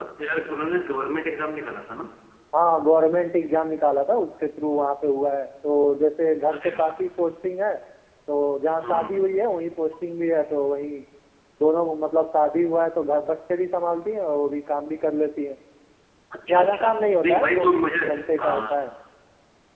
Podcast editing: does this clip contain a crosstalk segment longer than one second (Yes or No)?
Yes